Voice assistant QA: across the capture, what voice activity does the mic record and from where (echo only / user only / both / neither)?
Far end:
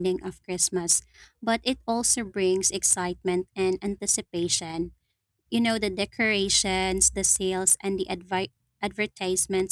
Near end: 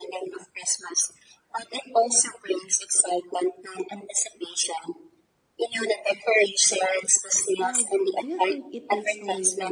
both